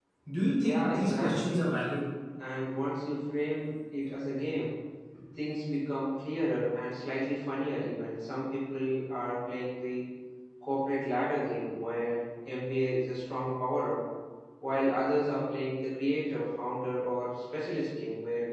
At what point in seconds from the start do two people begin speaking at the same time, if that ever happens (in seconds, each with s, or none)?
0.6 s